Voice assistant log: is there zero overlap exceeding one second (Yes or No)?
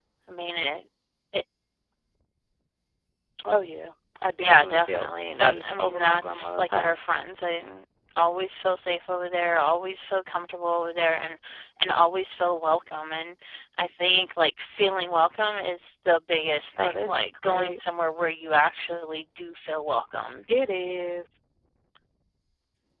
No